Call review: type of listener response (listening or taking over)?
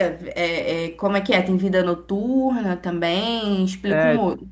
taking over